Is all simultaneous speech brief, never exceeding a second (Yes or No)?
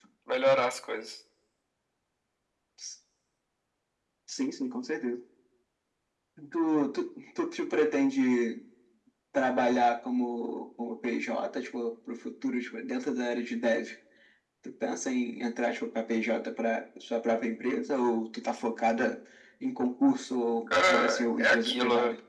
No